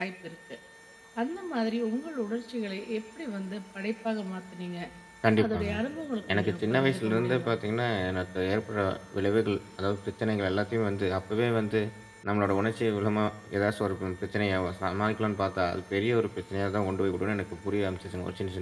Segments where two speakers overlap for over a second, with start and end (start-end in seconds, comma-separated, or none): 6.3-7.5